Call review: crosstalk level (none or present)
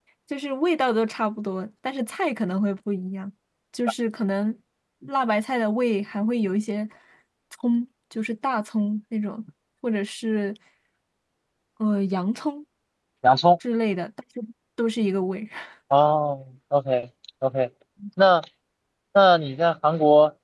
none